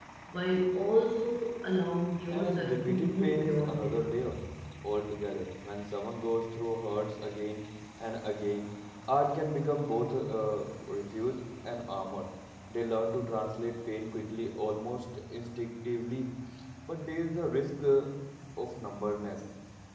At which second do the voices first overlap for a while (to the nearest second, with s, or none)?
2 s